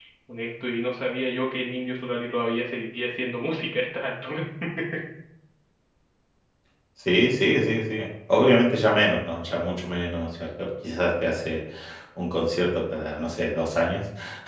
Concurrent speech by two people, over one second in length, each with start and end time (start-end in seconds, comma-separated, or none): none